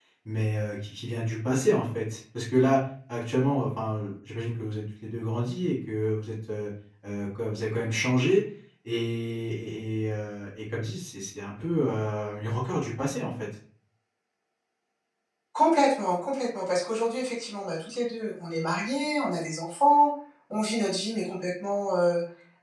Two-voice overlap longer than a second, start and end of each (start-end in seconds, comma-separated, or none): none